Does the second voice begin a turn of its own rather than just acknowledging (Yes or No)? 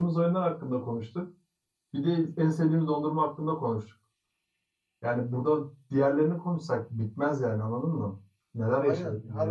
Yes